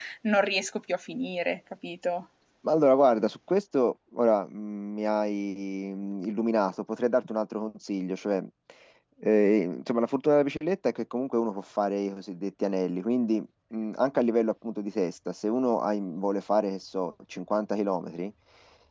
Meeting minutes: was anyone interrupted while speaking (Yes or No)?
No